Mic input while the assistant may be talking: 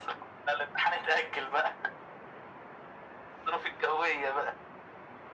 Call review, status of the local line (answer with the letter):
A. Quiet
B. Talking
A